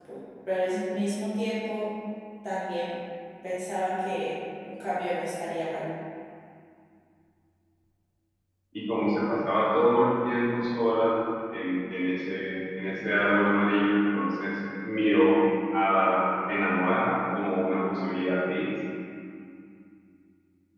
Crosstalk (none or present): none